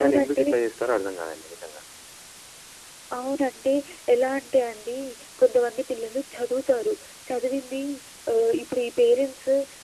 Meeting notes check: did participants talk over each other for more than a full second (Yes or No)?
No